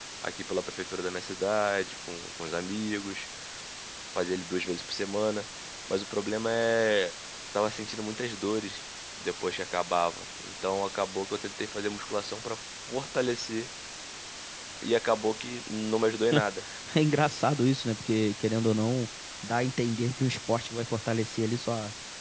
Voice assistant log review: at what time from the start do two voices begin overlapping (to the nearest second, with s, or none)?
none